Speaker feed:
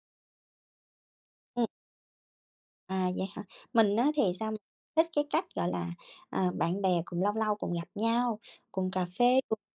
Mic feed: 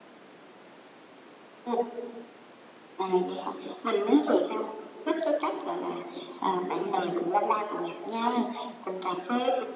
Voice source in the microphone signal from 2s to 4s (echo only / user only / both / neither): echo only